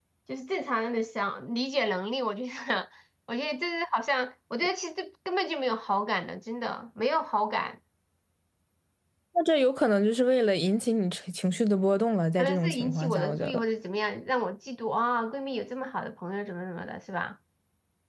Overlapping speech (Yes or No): Yes